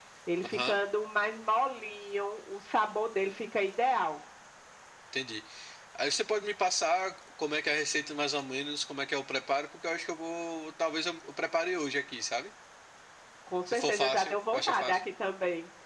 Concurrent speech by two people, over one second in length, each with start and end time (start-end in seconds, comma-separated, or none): 13.7-15.0